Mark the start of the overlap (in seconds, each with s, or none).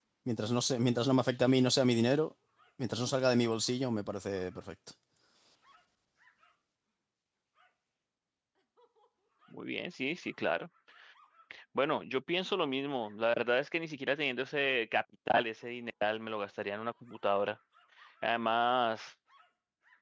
none